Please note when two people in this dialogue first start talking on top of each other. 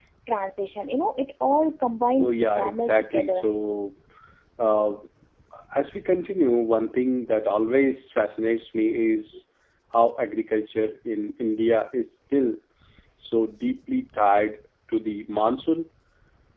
2.2 s

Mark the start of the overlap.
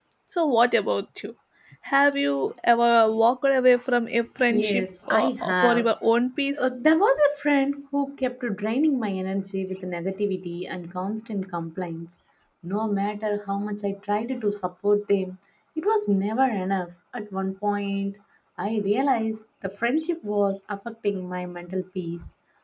4.5 s

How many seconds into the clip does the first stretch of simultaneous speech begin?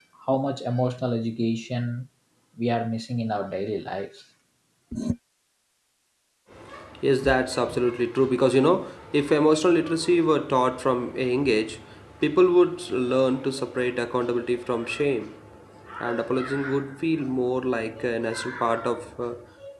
none

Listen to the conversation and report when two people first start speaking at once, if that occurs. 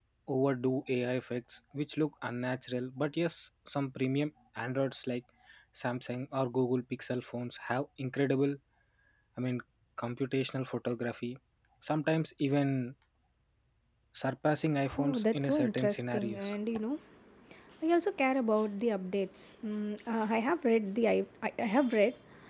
15.0 s

